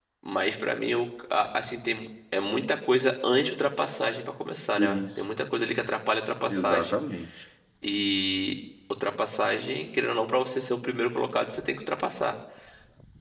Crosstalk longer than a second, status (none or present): none